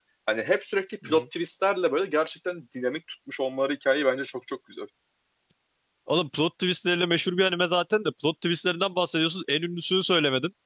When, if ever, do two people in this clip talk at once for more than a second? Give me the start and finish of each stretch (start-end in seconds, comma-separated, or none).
none